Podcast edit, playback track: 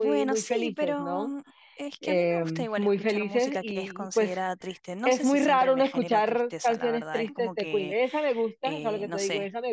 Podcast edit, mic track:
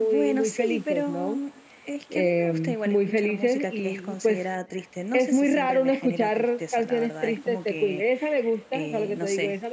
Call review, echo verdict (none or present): present